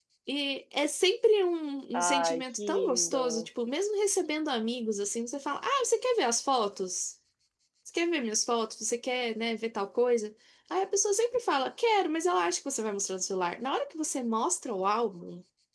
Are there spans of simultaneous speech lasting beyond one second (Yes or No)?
Yes